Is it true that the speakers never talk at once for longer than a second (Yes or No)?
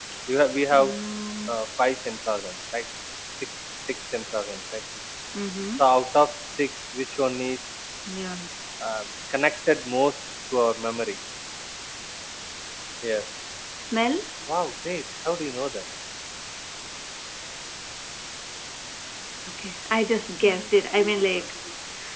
Yes